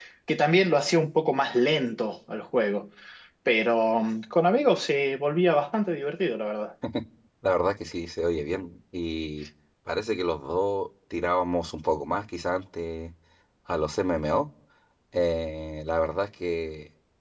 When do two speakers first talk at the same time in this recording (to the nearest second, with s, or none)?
none